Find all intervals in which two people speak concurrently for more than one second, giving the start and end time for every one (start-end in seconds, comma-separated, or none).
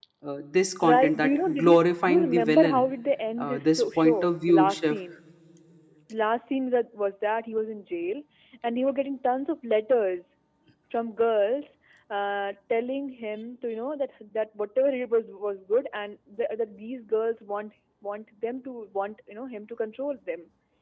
0.9-2.9, 3.4-5.0